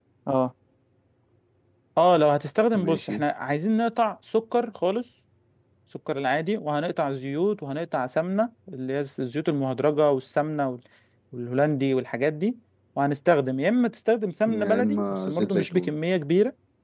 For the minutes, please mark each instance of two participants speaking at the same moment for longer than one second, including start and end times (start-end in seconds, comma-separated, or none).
14.5-15.9